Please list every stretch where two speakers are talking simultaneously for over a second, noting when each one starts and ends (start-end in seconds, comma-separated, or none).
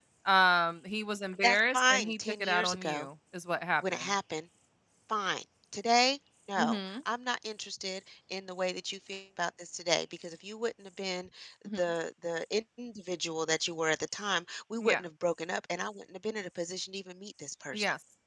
1.4-3.1